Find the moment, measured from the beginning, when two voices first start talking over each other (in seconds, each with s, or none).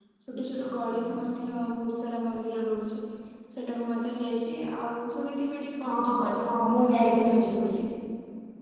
5.8 s